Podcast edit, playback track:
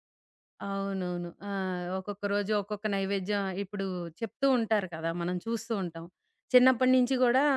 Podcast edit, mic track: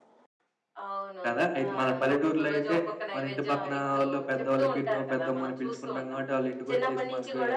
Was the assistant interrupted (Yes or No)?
Yes